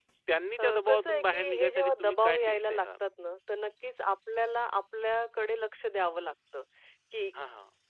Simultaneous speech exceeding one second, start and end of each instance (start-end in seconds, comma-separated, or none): 0.6-2.9